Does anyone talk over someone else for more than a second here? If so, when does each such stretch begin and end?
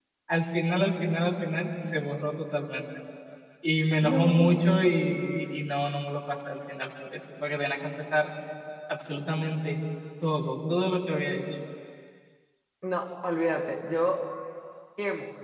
4.0-5.2

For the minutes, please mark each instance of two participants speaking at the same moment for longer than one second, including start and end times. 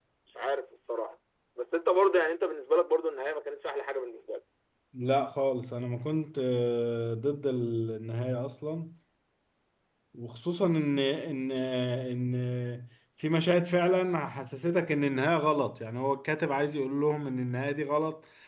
none

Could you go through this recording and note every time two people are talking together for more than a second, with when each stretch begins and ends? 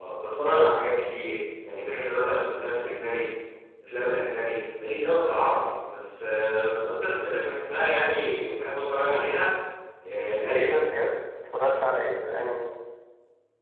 none

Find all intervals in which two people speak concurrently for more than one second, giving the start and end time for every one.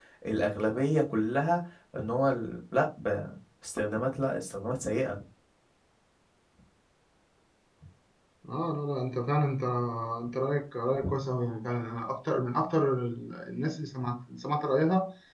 none

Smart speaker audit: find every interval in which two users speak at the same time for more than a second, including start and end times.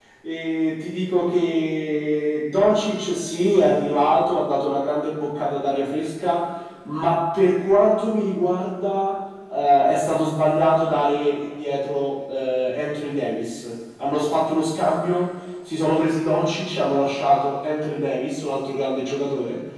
none

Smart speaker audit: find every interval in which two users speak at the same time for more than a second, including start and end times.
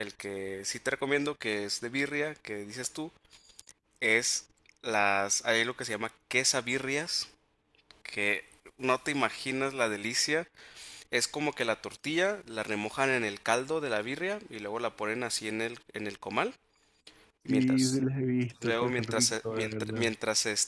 18.6-20.1

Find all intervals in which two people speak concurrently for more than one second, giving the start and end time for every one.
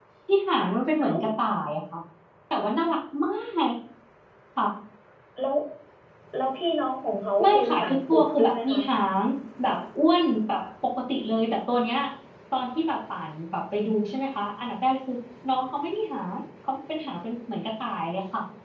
7.4-8.8

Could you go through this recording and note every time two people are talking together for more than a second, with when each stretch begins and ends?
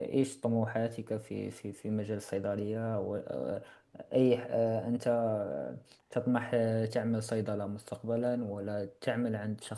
none

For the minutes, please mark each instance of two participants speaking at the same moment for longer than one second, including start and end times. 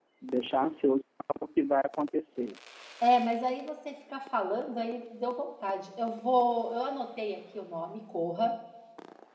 none

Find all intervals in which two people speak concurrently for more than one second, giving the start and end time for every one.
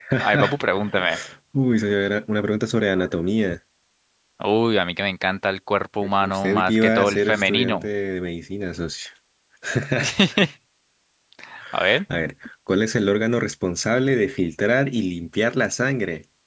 6.2-7.8

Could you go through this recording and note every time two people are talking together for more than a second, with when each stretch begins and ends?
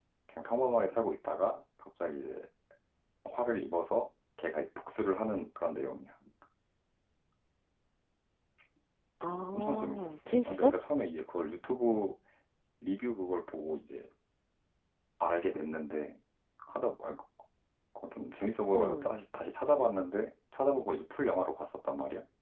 9.5-10.7

